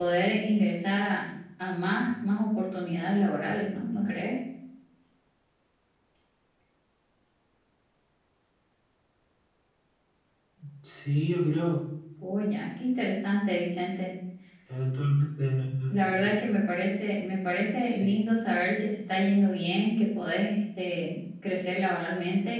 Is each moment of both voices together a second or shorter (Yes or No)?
Yes